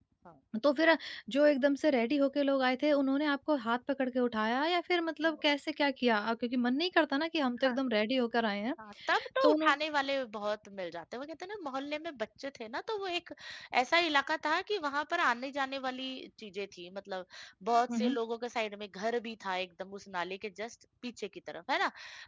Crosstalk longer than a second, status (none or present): none